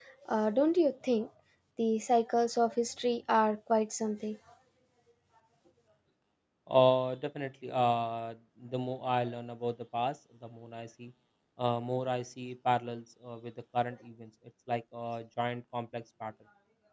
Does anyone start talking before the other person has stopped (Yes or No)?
No